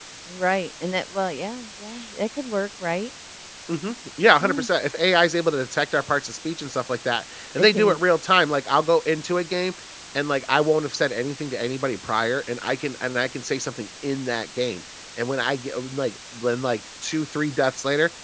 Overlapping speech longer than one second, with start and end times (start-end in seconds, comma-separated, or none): none